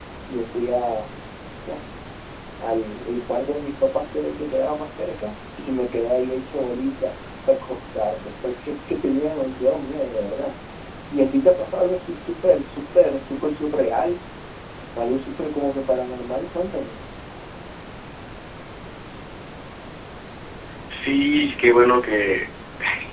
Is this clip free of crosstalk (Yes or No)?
Yes